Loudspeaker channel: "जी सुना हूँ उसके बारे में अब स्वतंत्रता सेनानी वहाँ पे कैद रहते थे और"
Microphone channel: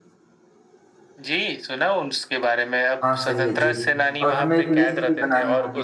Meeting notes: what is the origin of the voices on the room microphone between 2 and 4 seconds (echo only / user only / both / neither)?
both